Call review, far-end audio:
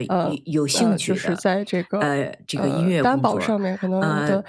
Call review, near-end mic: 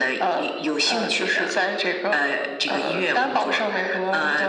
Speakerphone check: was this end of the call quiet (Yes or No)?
Yes